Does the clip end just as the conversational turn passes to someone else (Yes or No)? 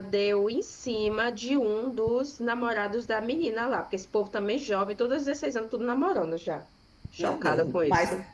Yes